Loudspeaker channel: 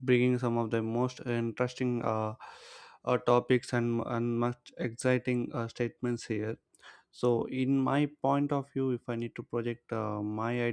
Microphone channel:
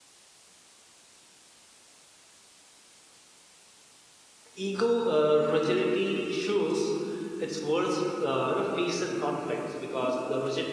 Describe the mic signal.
user only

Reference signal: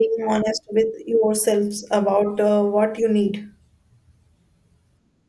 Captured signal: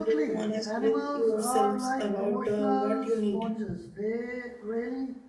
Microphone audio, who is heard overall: both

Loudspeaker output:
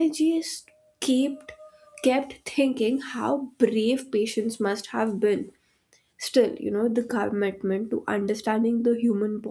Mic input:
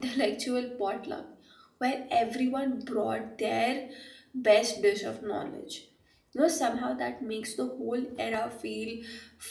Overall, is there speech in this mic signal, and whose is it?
user only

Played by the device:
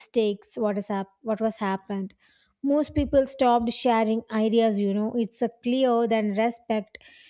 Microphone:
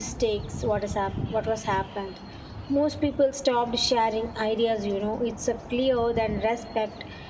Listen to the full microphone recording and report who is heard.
echo only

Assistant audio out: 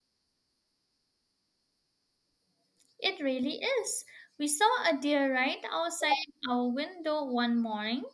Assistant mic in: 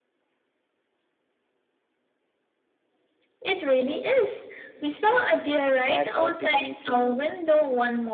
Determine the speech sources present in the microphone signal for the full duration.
both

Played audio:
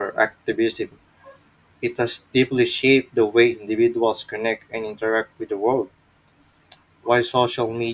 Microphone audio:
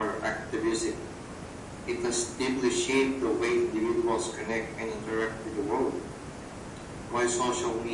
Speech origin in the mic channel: echo only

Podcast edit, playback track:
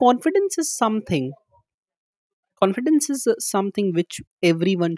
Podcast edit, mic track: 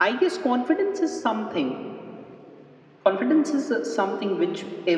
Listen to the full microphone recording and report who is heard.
echo only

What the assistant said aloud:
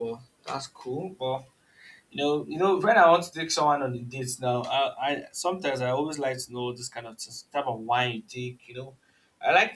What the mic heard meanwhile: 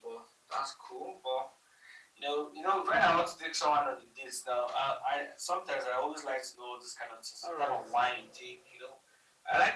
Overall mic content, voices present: both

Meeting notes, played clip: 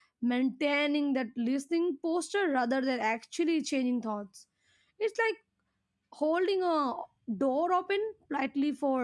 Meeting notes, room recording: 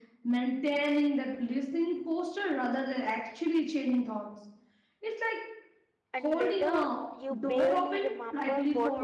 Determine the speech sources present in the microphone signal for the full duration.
both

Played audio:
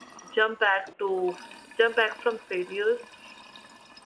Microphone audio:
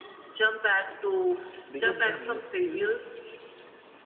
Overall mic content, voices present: both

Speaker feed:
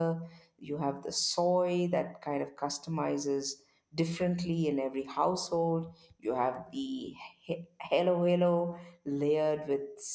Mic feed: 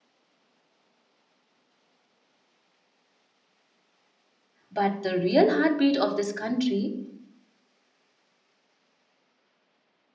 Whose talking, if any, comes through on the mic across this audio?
user only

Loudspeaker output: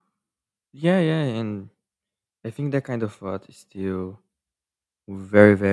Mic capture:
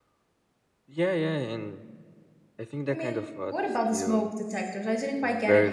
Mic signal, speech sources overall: both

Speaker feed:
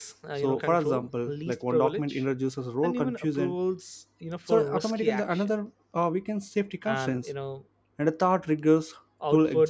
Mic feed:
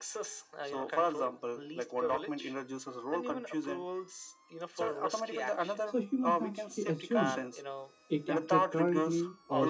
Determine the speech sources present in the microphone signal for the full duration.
both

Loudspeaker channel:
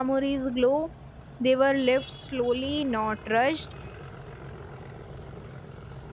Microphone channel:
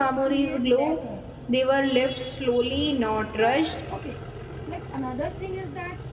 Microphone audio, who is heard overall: both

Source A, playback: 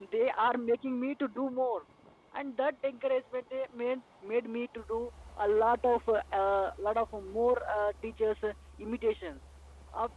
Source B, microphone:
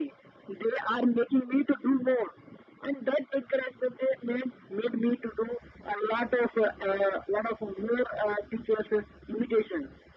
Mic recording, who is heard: echo only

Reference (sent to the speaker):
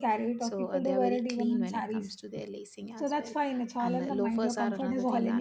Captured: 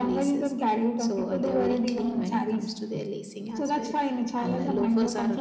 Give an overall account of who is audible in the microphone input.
echo only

